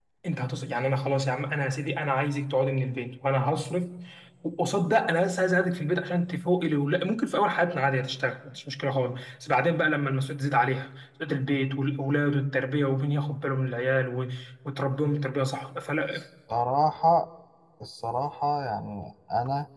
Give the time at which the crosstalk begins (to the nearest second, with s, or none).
none